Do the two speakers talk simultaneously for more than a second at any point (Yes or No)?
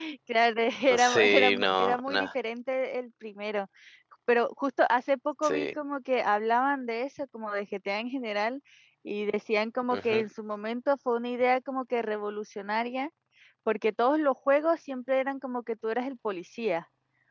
Yes